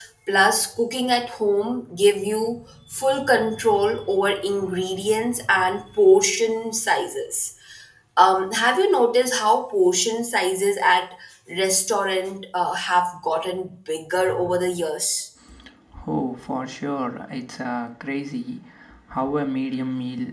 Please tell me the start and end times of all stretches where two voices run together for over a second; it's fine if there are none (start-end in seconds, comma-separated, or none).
none